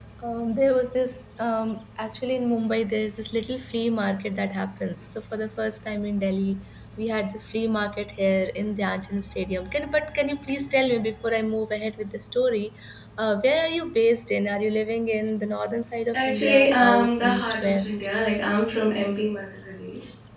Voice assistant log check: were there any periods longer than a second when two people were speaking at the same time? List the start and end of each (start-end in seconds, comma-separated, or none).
16.1-18.1